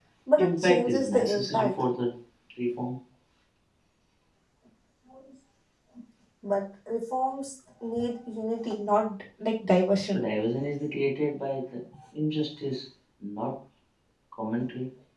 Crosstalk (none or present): present